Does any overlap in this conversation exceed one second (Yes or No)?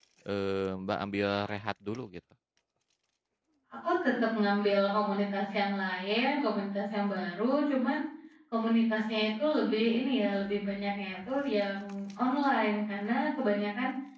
No